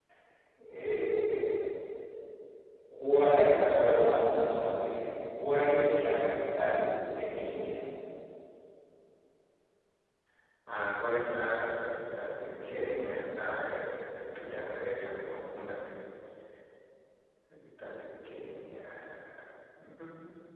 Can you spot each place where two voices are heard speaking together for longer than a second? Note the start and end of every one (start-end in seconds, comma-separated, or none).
none